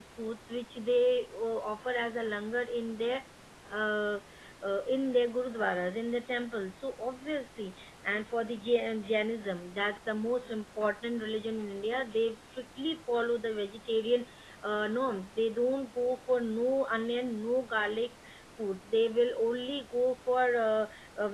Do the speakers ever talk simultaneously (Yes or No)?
No